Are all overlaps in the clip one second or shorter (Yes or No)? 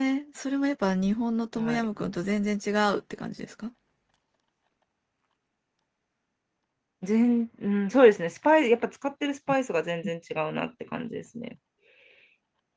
Yes